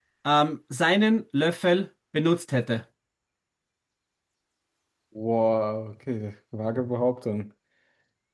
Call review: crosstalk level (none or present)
none